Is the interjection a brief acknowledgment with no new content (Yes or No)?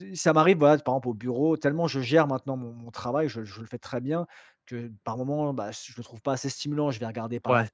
Yes